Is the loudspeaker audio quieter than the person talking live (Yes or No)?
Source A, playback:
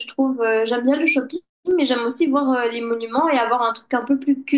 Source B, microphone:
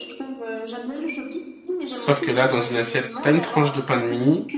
Yes